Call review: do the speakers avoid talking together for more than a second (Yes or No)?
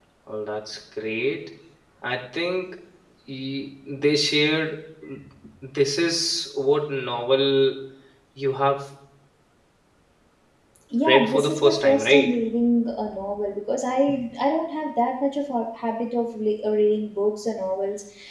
No